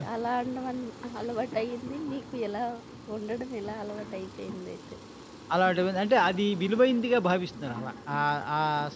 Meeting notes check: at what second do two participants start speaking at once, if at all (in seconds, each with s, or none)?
none